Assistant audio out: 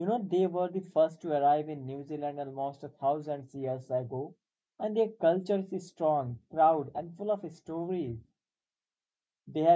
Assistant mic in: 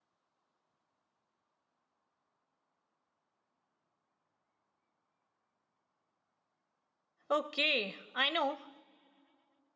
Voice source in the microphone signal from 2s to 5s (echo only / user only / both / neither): neither